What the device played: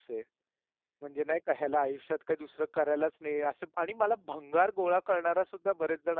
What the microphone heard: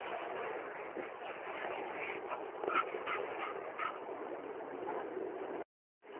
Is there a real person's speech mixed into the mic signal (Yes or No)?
No